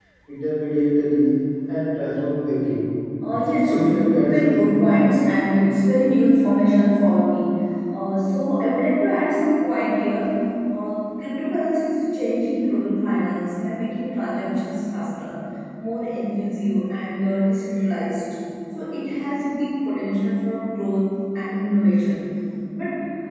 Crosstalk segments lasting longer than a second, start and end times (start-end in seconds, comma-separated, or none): 3.6-4.9